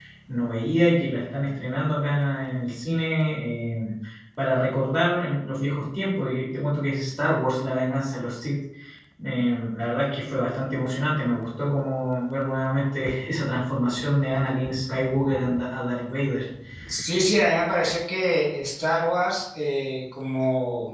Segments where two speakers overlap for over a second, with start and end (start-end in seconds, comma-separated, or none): none